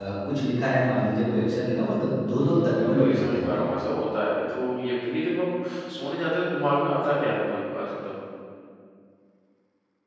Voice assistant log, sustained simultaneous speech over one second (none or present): present